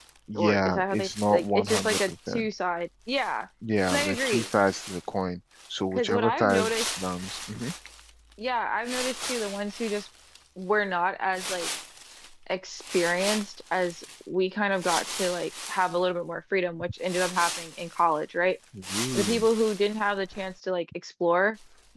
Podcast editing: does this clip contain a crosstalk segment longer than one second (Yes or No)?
Yes